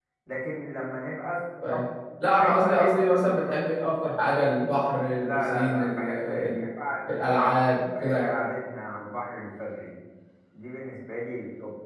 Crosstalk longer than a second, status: present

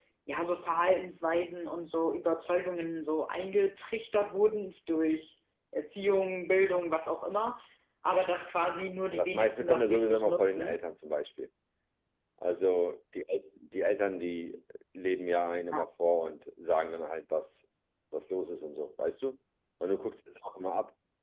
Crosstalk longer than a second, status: present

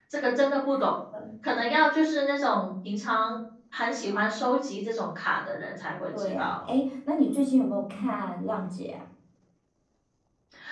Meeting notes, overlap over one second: none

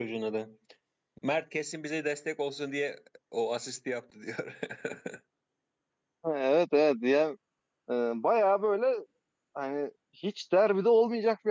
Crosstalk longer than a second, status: none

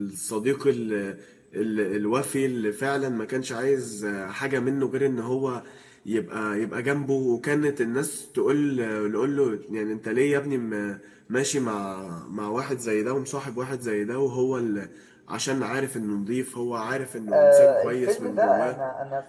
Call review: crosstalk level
present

